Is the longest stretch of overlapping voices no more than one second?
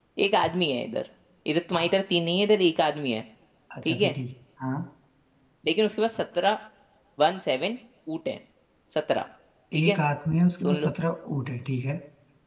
Yes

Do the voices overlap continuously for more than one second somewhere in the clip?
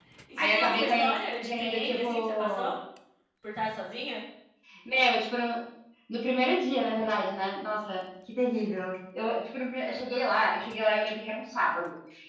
Yes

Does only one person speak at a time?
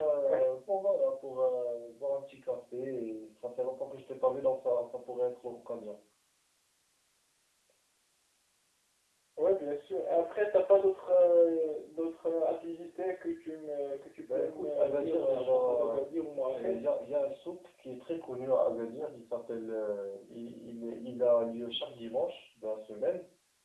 No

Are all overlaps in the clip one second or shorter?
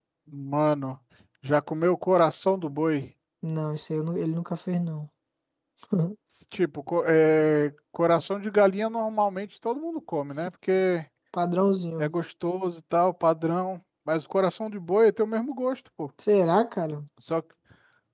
Yes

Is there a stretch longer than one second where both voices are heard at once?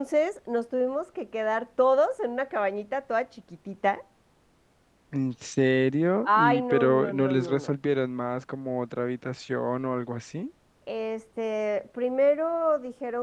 Yes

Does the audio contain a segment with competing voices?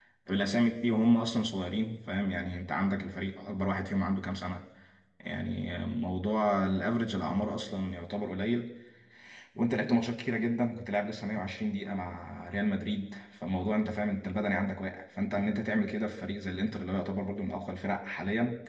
No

